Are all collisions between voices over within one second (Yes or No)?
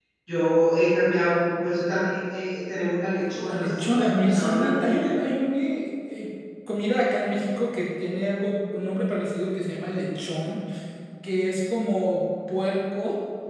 No